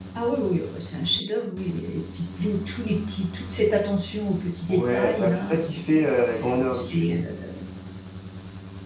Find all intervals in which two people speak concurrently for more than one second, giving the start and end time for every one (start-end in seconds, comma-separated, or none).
4.7-6.1